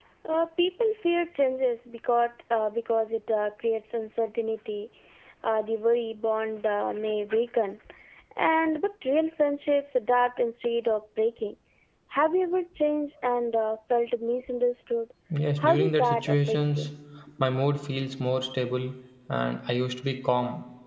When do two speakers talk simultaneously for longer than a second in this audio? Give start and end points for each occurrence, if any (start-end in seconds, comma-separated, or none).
15.6-16.9